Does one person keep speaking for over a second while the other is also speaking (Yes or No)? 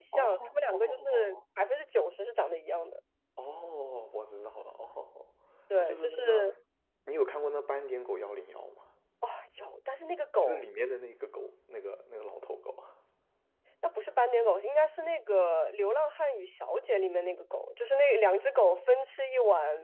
Yes